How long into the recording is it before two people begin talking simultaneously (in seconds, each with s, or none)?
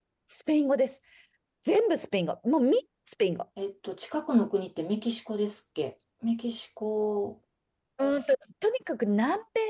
none